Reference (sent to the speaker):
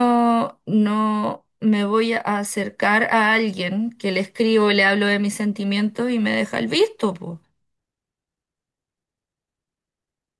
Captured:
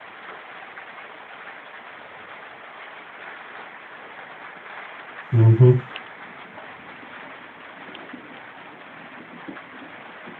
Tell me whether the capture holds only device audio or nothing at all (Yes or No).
No